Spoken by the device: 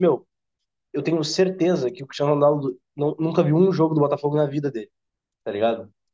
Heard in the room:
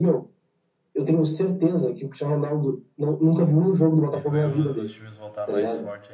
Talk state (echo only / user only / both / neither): both